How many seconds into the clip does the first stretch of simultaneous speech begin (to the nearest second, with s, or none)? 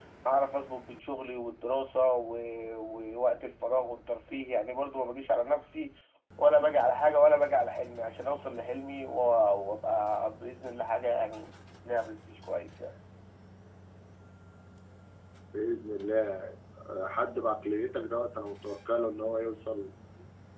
none